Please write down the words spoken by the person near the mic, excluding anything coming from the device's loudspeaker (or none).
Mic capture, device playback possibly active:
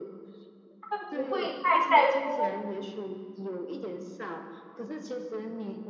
他不会太在乎，